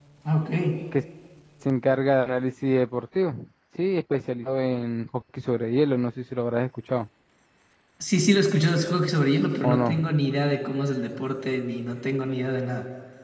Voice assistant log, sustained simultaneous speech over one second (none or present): none